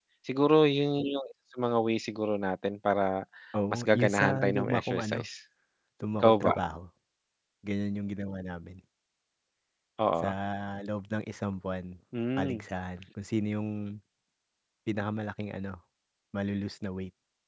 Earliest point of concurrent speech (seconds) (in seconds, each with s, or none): 3.7 s